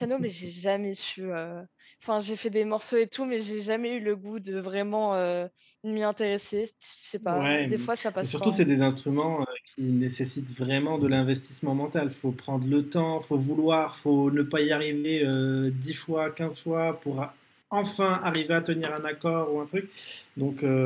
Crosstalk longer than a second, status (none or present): present